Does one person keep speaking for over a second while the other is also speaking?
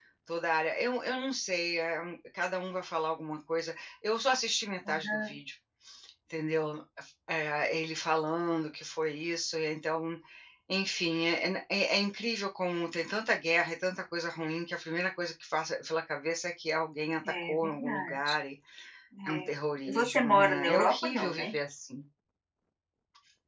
Yes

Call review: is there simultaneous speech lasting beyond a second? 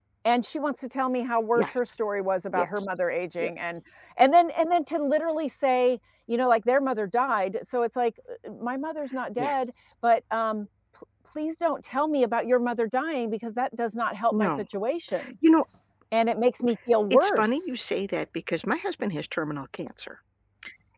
No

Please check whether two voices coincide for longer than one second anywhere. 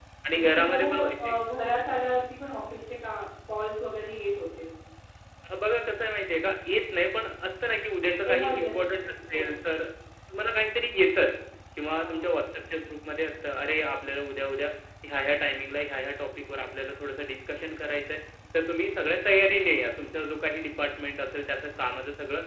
Yes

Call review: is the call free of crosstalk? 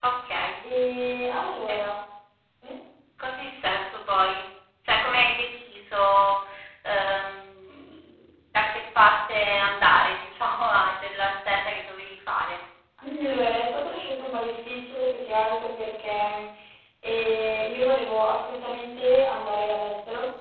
Yes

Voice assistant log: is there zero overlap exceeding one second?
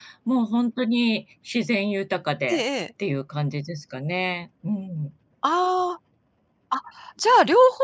Yes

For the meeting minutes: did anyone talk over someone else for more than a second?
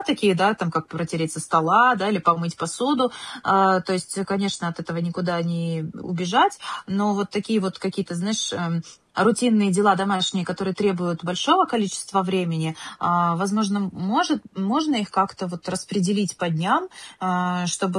No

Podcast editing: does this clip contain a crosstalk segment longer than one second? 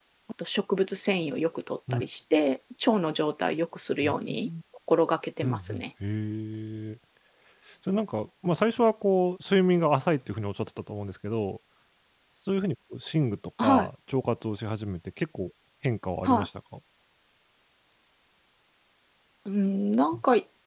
No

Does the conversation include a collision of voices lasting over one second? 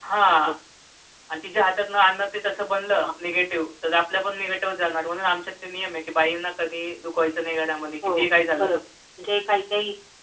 No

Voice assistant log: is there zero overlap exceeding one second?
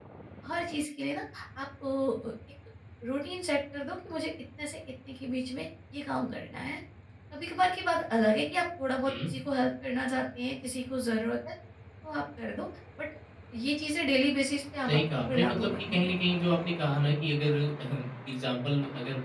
No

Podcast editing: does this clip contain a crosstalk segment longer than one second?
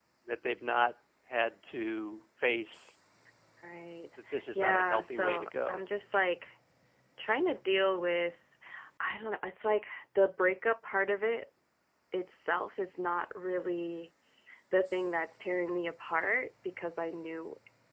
Yes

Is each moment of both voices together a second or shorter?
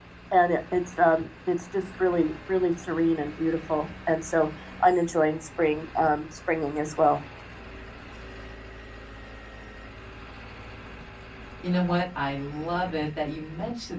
Yes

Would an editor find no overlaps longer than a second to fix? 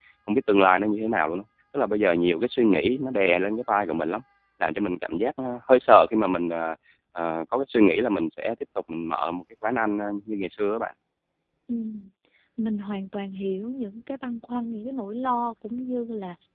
Yes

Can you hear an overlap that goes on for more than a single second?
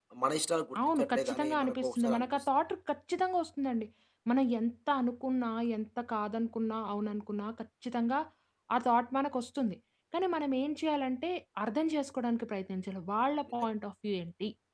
Yes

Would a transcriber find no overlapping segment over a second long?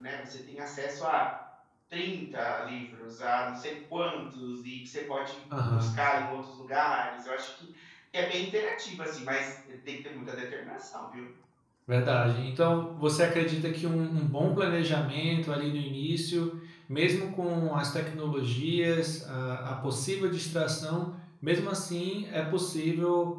Yes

